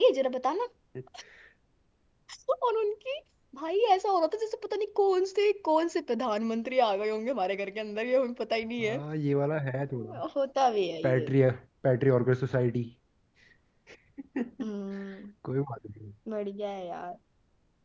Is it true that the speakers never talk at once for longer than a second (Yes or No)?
Yes